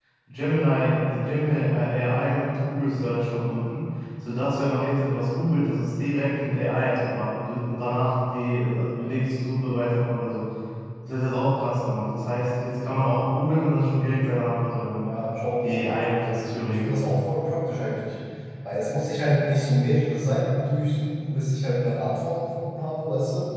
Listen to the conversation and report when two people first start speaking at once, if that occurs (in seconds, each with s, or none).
15.6 s